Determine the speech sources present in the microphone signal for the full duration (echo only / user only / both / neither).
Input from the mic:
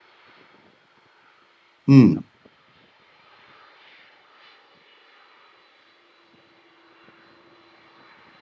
user only